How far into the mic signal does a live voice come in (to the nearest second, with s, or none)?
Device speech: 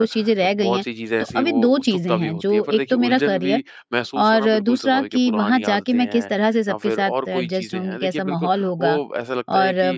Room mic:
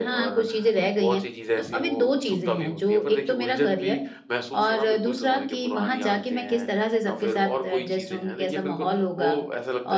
none